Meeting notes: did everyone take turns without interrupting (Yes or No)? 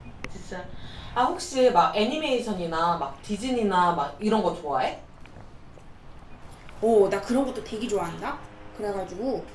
Yes